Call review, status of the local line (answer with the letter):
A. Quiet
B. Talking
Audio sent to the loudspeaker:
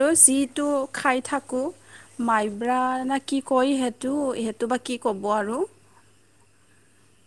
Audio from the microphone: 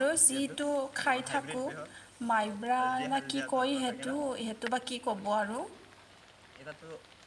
B